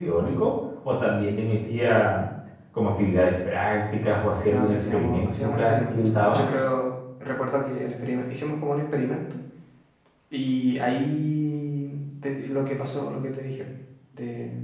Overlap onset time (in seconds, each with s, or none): 4.5 s